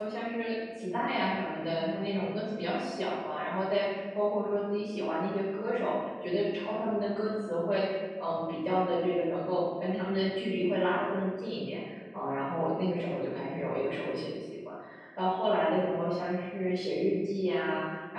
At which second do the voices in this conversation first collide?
none

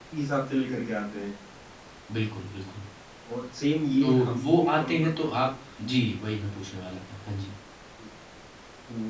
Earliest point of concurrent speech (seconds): 4.0 s

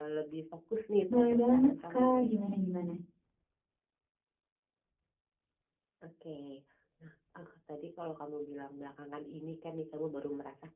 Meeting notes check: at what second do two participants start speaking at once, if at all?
1.1 s

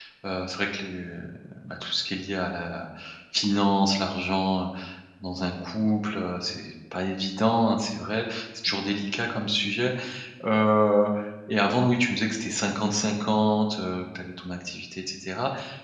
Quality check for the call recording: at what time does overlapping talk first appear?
none

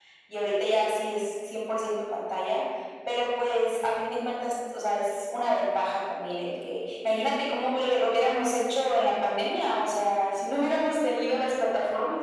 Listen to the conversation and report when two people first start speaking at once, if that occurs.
none

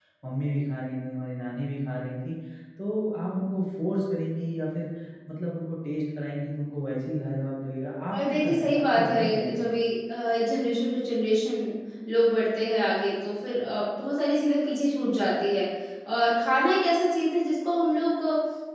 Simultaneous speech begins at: 8.1 s

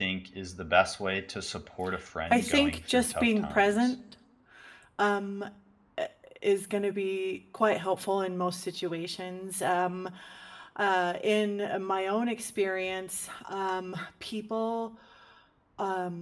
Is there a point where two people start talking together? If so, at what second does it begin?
2.3 s

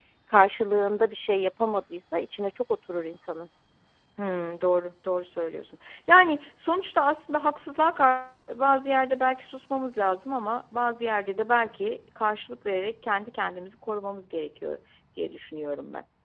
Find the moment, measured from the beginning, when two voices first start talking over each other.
none

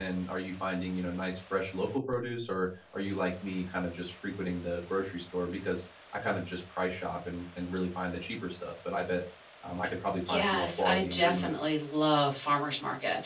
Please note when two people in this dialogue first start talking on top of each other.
10.3 s

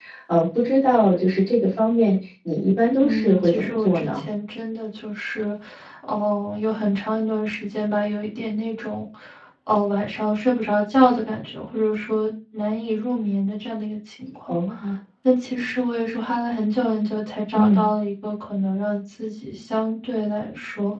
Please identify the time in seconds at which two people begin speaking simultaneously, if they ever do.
3.0 s

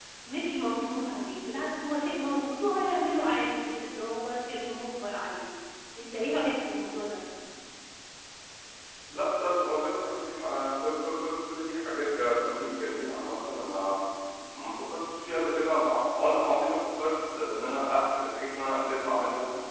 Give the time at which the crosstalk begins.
none

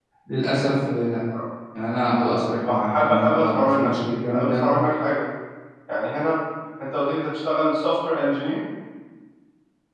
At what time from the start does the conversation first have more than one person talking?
2.6 s

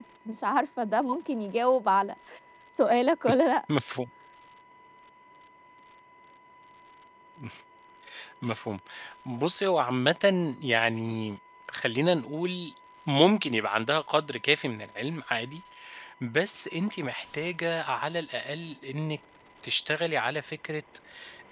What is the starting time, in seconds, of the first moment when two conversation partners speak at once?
none

